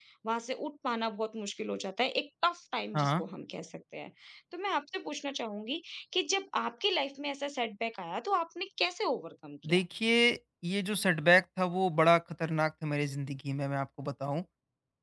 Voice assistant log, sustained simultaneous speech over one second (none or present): none